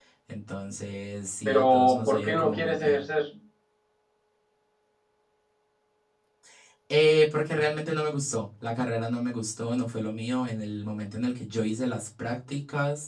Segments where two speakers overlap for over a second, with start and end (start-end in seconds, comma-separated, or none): 1.4-3.0